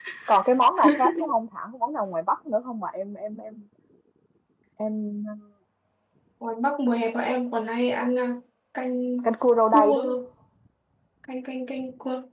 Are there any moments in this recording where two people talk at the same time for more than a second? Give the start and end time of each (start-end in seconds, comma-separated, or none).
none